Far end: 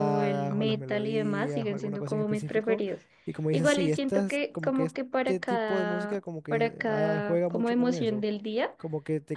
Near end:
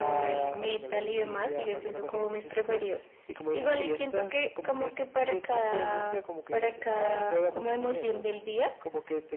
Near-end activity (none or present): none